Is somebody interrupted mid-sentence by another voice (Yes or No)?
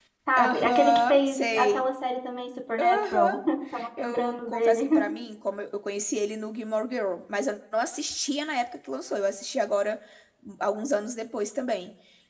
Yes